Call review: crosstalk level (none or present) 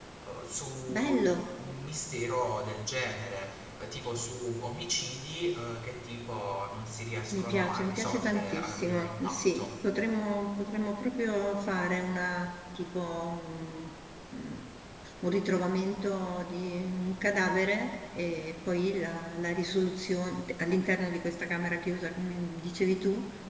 present